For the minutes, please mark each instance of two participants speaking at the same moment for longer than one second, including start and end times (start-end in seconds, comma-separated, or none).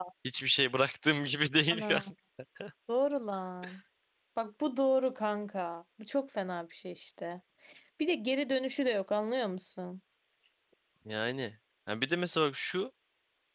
none